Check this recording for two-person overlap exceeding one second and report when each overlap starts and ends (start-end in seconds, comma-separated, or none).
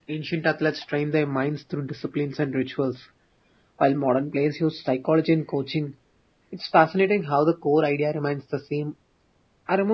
none